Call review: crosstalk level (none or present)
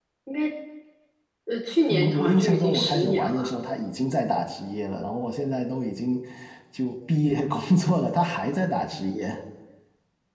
present